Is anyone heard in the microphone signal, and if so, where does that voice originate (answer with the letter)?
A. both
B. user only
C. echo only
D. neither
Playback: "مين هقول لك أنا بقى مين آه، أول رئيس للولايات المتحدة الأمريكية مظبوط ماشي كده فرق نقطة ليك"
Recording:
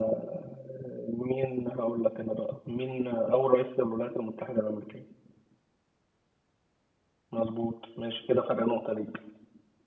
C